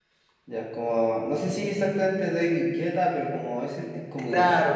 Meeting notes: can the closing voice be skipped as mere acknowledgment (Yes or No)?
No